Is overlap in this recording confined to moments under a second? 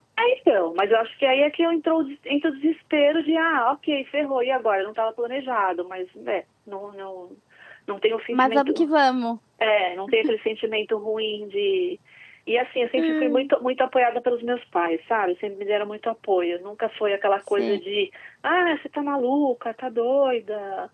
Yes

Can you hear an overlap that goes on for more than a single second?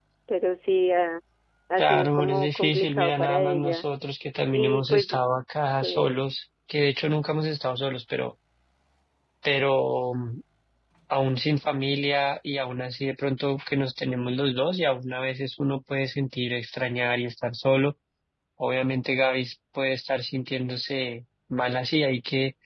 Yes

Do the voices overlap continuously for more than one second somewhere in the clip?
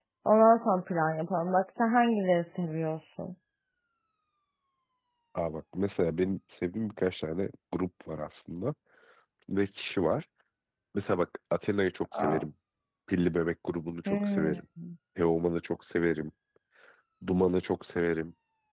No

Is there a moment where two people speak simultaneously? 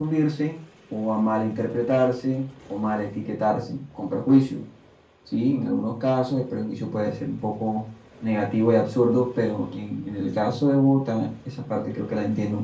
No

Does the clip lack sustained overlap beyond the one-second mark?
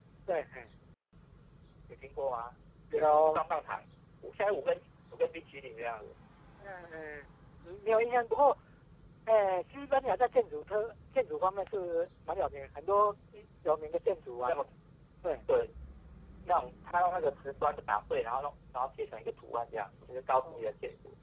Yes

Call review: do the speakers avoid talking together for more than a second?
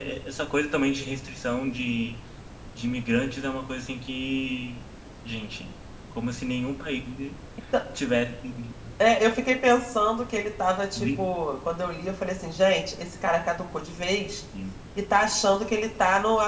Yes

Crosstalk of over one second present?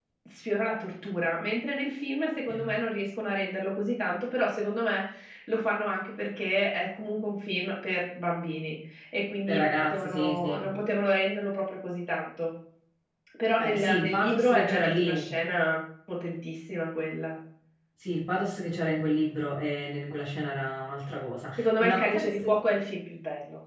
Yes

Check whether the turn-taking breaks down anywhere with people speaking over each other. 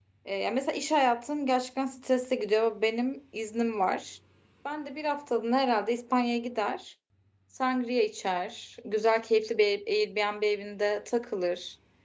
No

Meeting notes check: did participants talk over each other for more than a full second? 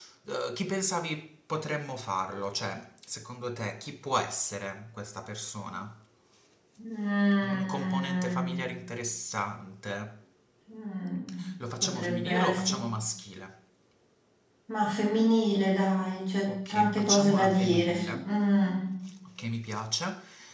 Yes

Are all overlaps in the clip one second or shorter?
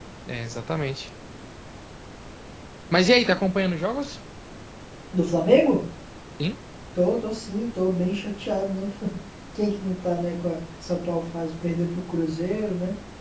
Yes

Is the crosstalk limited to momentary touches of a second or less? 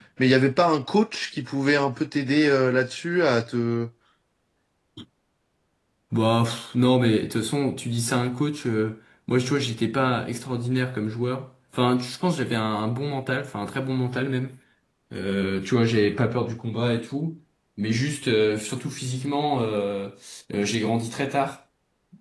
Yes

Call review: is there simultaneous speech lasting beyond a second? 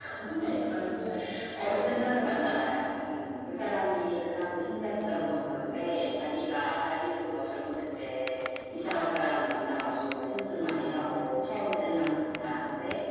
No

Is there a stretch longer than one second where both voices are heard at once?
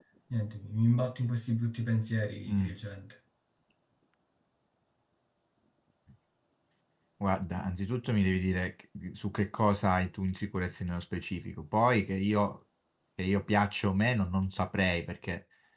No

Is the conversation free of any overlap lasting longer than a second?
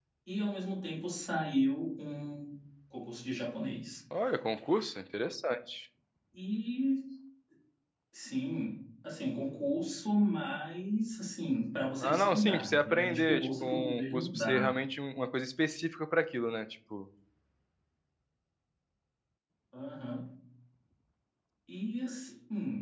No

